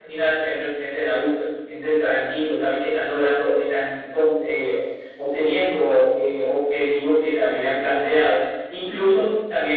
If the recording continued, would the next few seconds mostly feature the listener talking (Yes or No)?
No